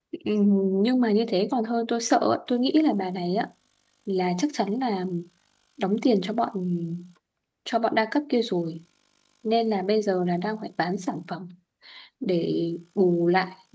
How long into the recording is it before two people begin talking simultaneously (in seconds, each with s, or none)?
none